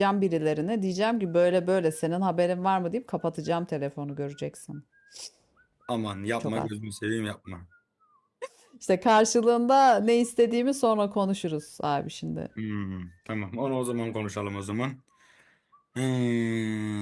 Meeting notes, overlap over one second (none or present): none